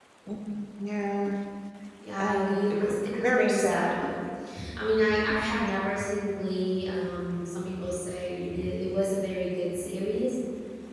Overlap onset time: 2.2 s

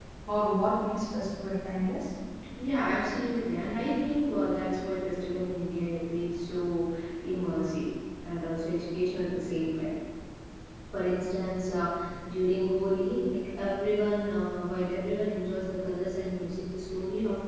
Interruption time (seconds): none

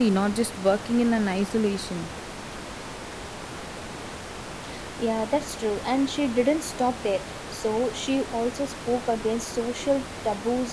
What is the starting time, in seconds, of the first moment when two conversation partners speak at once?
none

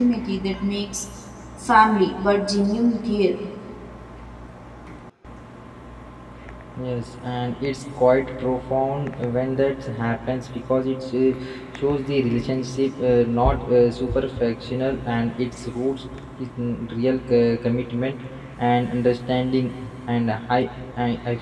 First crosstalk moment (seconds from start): none

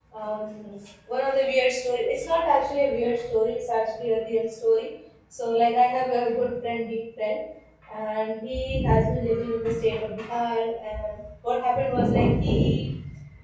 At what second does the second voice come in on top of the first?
none

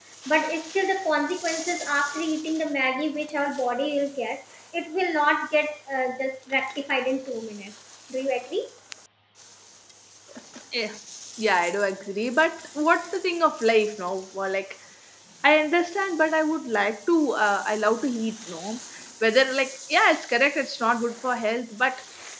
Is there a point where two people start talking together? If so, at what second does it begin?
none

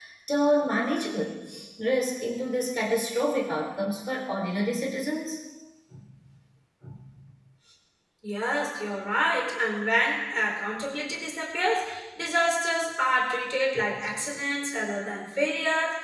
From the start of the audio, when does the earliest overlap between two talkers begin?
none

